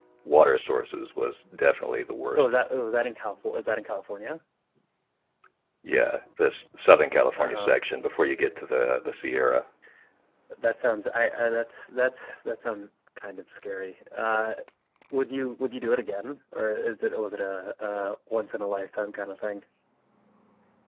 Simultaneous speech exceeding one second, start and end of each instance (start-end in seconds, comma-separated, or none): none